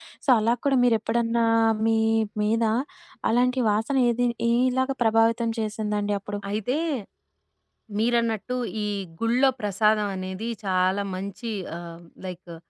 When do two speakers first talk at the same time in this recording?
none

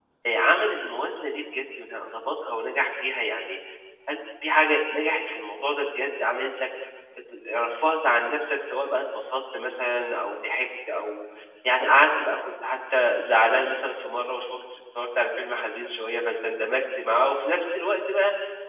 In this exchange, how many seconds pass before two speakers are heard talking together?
none

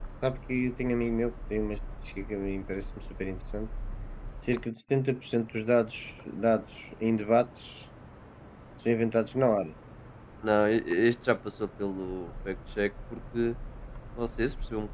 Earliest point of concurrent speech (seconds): none

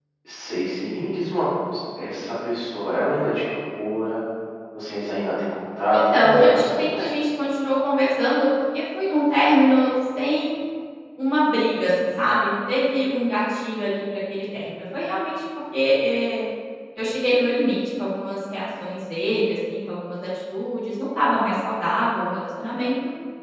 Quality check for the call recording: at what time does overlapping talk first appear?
5.9 s

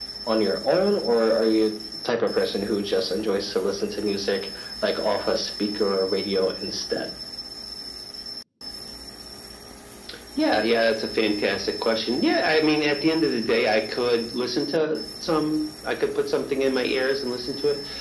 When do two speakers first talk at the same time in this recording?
none

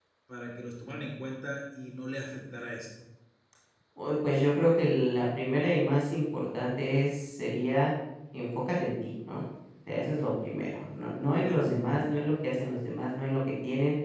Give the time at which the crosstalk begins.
10.4 s

